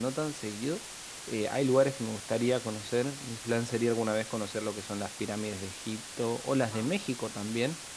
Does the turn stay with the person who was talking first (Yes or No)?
Yes